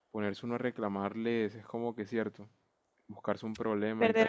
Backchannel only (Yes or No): No